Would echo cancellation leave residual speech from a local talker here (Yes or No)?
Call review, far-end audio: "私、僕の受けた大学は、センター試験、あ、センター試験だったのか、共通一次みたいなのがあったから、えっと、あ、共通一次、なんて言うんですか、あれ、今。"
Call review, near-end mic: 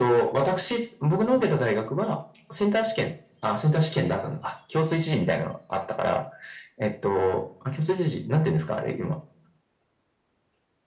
No